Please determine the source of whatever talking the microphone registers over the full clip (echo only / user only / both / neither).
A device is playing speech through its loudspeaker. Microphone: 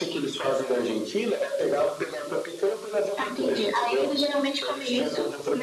echo only